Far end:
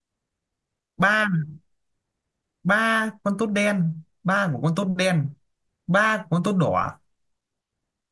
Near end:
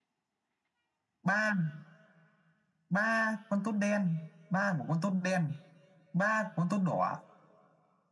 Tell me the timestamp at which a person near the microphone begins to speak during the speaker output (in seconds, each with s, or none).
none